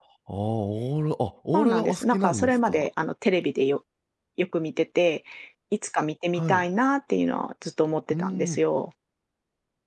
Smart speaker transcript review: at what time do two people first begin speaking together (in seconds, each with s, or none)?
1.5 s